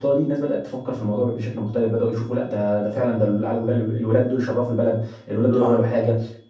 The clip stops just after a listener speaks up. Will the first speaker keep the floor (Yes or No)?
Yes